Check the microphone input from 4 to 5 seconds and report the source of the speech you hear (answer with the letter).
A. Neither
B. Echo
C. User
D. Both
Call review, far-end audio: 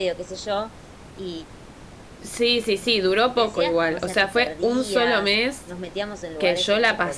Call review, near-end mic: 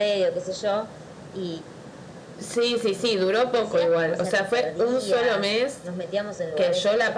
B